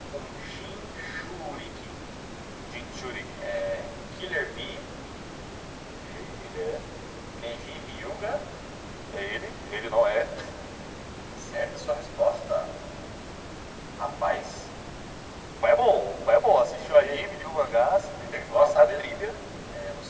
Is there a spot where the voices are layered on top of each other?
Yes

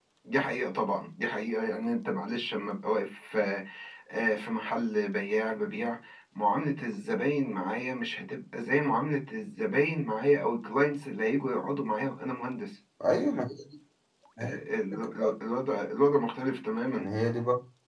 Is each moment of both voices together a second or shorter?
Yes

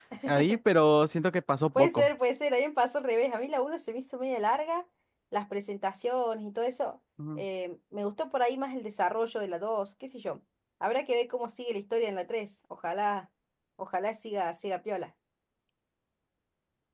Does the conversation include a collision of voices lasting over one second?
No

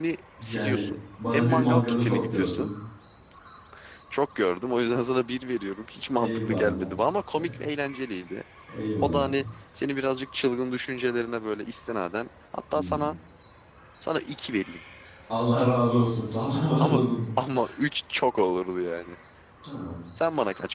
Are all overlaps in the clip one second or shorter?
No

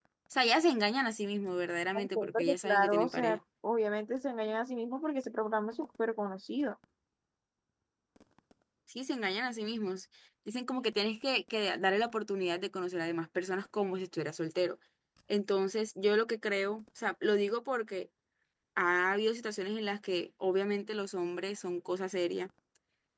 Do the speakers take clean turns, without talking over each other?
No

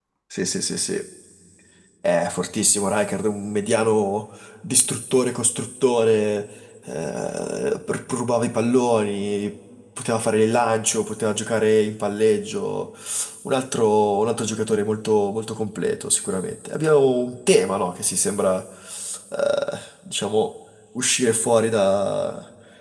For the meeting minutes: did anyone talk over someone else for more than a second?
No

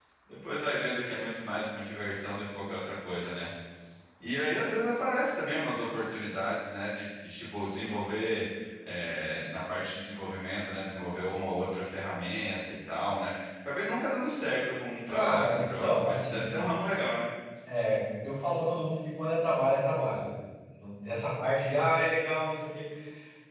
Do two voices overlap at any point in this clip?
Yes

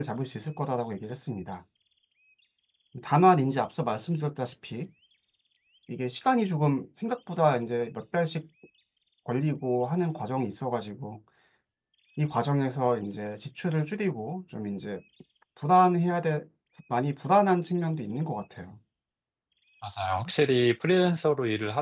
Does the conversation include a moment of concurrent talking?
No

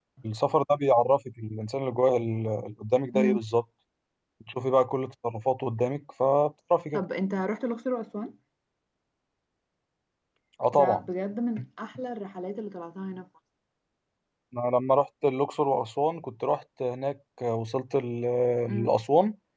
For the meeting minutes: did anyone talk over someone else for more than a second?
No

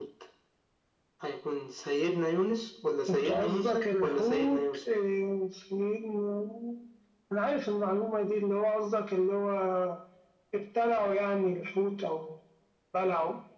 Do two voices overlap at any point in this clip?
Yes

